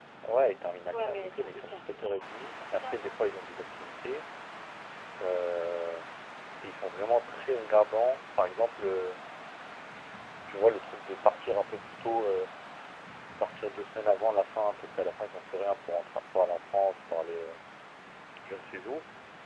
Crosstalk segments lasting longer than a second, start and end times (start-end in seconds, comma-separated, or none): 0.9-3.1